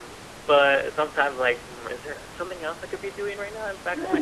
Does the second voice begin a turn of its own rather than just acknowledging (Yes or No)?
Yes